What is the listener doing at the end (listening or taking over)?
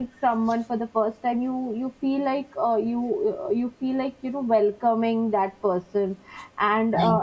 listening